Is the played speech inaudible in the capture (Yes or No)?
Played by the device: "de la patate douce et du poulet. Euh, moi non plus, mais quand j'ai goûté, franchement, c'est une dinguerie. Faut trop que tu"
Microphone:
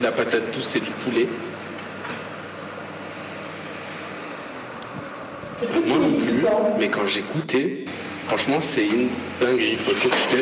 No